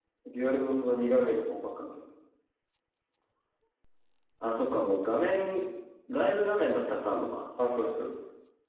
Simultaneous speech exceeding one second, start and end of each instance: none

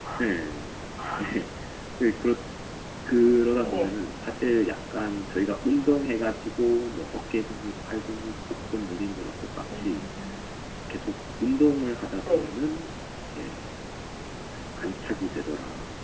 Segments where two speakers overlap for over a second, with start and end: none

